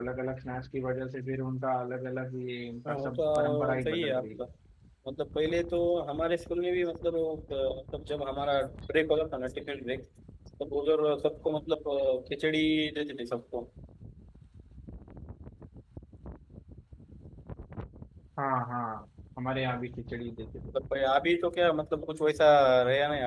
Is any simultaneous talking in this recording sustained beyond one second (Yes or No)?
Yes